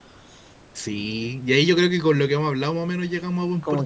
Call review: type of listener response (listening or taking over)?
taking over